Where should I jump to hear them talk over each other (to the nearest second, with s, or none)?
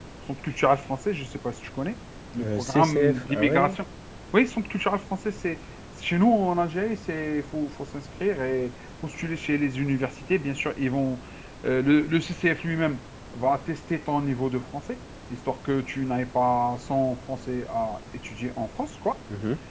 2 s